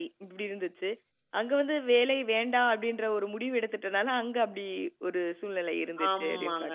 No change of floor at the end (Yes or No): No